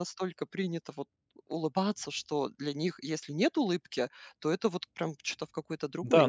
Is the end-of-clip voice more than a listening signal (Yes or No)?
Yes